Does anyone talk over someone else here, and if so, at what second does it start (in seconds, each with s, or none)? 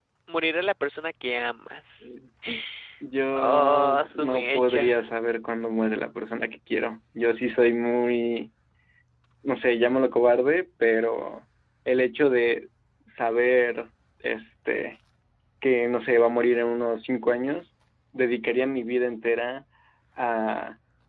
3.3 s